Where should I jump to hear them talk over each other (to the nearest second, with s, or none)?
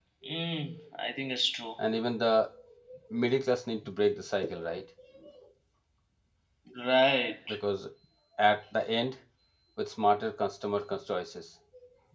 none